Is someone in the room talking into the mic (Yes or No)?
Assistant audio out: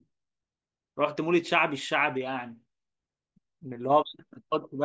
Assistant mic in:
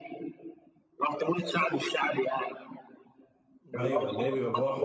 Yes